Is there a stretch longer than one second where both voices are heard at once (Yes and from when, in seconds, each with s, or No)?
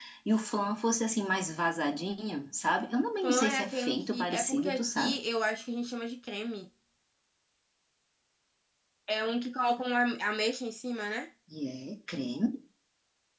Yes, from 3.2 s